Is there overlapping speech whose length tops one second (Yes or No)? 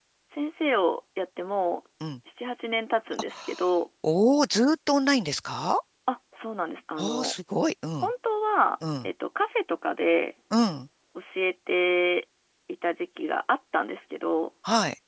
No